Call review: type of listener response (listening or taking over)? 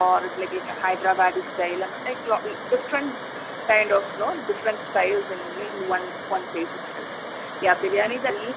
taking over